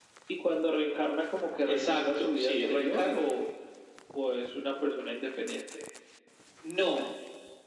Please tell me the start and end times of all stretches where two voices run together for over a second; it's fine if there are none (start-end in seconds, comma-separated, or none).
1.6-3.1